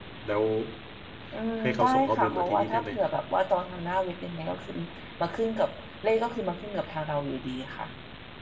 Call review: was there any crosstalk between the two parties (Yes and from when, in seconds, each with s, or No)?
Yes, from 1.6 s